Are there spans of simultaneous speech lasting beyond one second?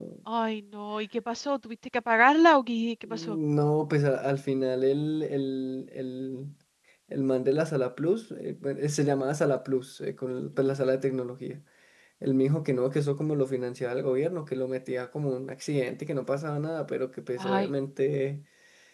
No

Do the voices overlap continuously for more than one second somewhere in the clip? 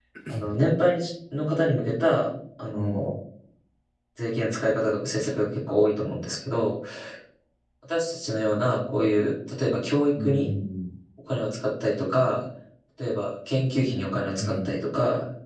No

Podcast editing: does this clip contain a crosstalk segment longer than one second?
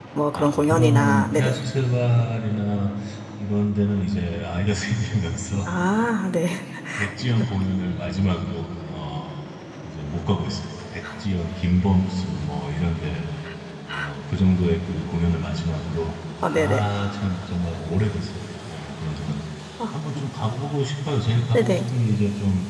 Yes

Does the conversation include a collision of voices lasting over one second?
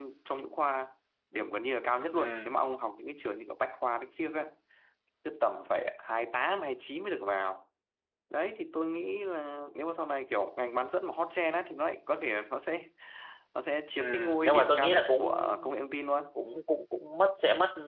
Yes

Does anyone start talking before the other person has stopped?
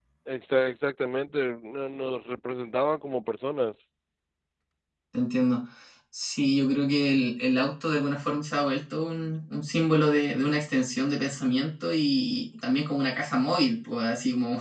No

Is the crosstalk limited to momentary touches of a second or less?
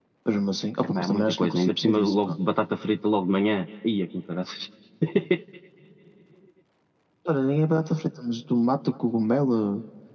No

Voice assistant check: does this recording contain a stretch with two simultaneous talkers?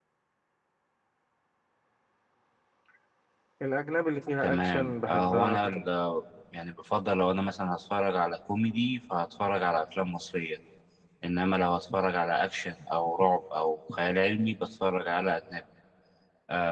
Yes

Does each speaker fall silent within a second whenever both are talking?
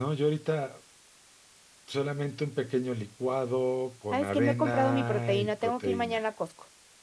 No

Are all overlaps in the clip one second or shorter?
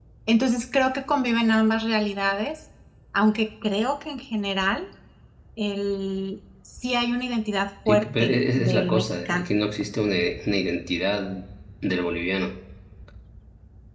No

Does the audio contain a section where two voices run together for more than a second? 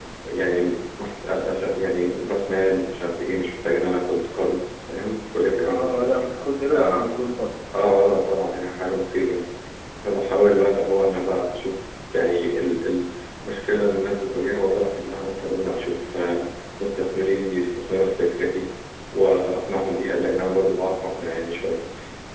No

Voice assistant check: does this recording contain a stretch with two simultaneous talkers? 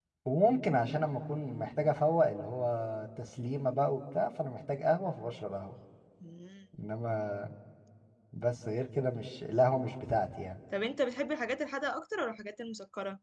No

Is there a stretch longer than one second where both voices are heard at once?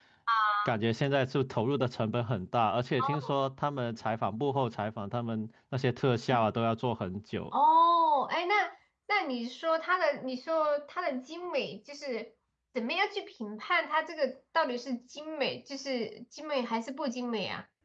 No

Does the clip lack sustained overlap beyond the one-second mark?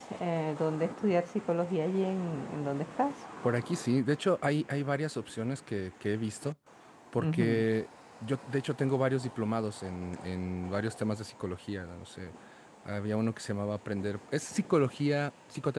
Yes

